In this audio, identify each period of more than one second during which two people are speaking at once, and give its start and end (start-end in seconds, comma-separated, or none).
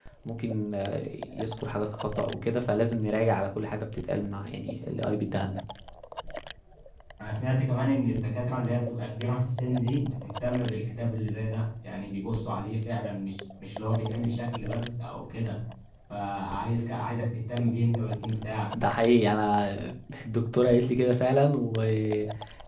none